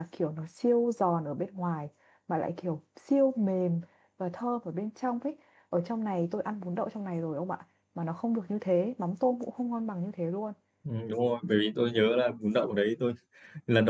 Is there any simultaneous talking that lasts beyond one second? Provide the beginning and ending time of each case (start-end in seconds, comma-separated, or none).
none